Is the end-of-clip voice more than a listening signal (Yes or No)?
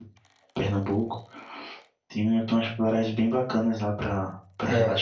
Yes